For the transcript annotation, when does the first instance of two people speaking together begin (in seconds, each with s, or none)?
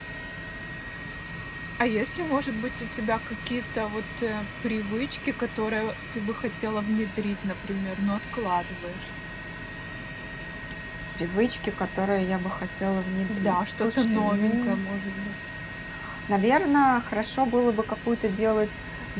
13.3 s